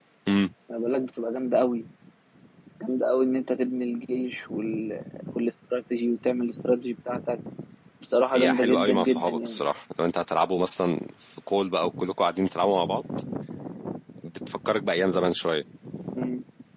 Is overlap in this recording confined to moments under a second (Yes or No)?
No